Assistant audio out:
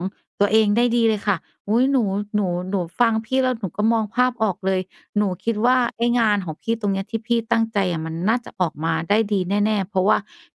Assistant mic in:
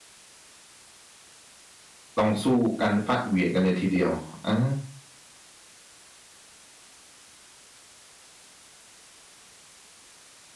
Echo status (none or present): none